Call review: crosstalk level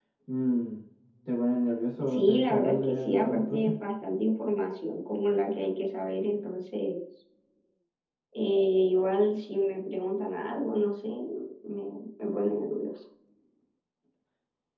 present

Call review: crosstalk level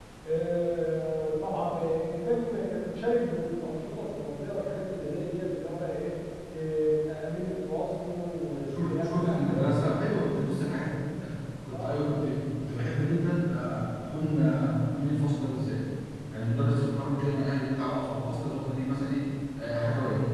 present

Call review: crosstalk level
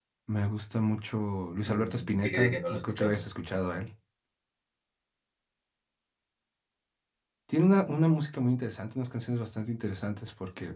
present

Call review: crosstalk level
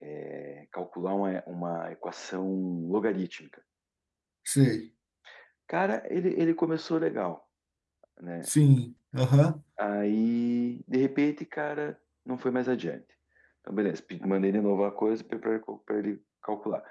none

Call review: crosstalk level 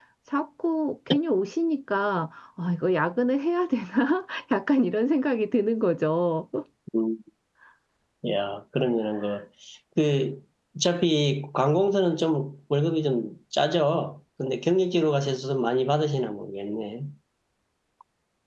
none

